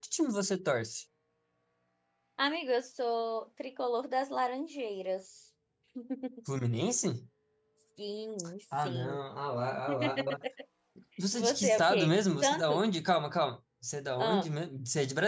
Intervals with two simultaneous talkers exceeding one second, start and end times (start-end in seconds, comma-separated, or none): 11.3-12.8